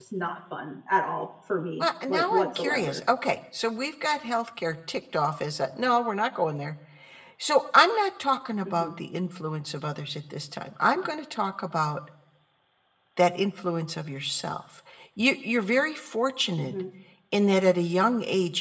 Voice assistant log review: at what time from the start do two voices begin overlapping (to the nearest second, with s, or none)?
2 s